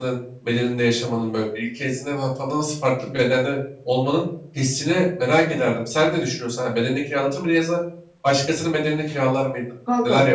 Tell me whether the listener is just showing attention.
No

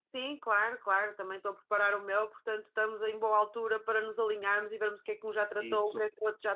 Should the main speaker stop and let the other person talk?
No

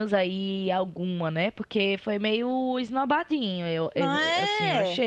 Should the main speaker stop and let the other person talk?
Yes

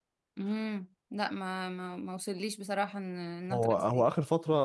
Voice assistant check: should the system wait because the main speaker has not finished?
No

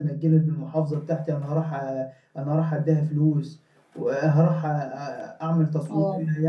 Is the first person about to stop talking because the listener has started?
No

